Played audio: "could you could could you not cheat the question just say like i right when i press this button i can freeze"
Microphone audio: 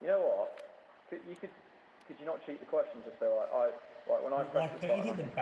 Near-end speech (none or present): present